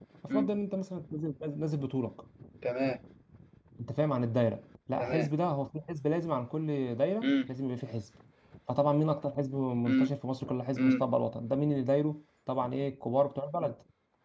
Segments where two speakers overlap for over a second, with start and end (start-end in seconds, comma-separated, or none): none